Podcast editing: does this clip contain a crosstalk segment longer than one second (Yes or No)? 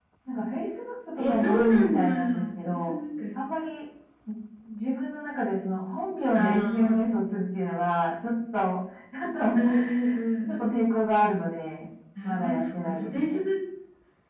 Yes